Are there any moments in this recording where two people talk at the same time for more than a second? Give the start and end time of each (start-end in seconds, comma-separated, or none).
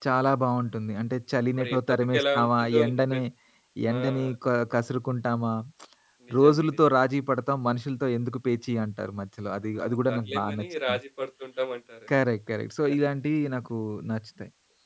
1.6-3.2, 9.8-11.0